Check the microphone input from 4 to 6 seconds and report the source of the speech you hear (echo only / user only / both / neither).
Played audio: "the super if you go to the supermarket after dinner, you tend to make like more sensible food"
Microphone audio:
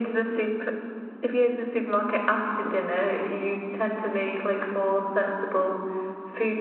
echo only